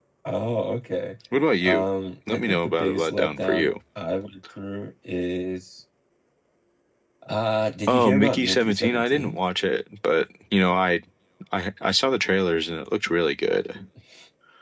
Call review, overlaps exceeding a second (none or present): present